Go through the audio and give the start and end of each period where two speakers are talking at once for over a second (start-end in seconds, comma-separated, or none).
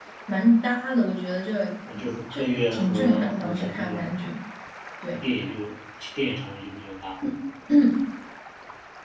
1.9-4.1